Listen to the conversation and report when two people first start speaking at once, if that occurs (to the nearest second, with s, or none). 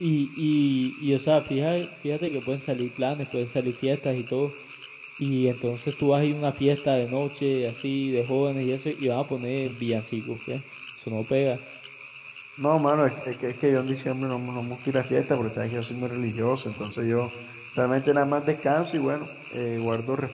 none